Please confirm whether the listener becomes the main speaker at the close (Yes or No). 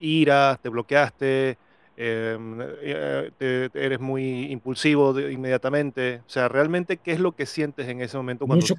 Yes